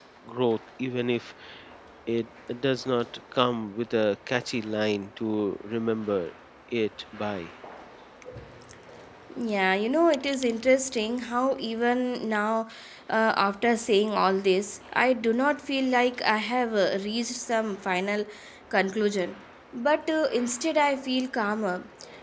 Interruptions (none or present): none